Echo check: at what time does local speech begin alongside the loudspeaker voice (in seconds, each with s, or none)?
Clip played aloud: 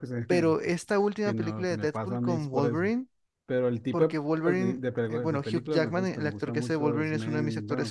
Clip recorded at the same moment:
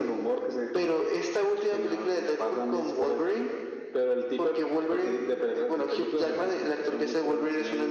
none